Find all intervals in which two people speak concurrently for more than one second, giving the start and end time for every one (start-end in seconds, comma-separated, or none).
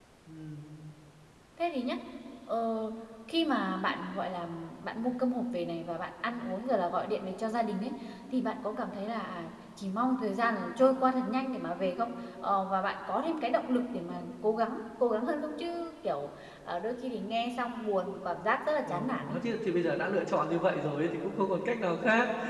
none